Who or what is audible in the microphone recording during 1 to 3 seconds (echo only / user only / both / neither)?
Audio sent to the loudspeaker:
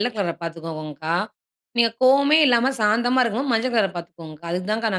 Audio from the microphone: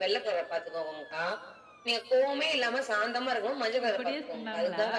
echo only